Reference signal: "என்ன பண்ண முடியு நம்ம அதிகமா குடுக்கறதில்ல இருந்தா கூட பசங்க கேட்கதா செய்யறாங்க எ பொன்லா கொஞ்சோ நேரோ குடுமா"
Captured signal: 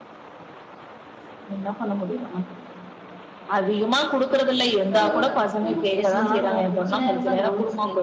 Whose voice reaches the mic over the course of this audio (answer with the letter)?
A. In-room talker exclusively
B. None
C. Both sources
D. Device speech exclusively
C